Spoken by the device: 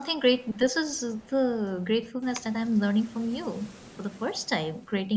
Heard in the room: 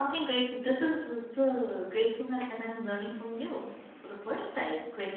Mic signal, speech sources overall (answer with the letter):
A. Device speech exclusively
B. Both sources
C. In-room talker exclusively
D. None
A